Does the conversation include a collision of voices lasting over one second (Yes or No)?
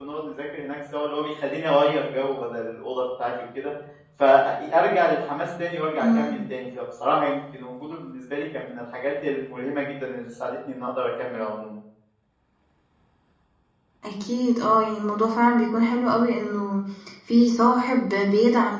No